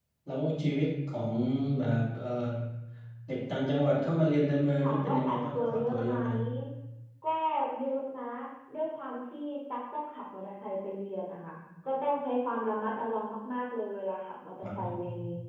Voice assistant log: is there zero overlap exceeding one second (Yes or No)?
No